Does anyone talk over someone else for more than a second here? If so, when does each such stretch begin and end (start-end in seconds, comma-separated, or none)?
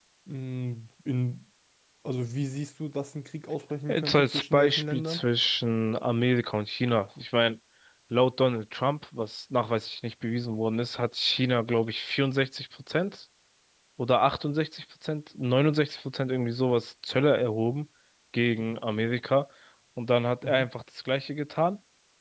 3.9-5.2